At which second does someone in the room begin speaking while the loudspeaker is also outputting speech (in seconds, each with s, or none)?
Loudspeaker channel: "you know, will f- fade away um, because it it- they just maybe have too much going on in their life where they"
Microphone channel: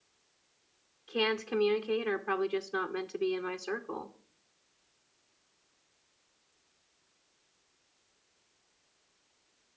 1.1 s